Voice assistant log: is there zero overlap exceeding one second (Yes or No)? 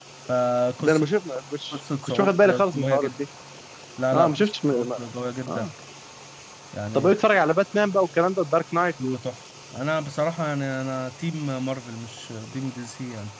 No